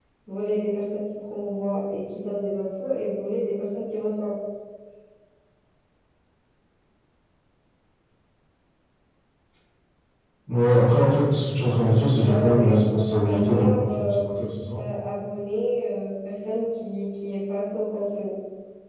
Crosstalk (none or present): present